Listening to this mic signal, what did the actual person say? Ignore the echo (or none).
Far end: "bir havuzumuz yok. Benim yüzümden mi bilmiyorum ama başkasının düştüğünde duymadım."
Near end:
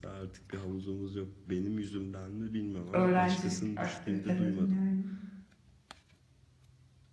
öğrencilik aktivitelerin yani?